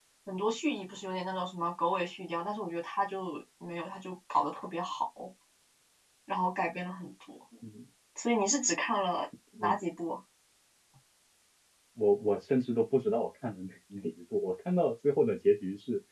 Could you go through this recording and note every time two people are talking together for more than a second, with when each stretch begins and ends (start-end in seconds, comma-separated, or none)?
none